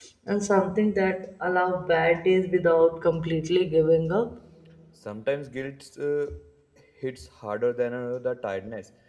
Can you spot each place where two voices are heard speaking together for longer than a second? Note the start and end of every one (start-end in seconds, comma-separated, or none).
none